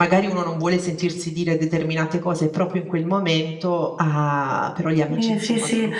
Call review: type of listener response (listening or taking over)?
taking over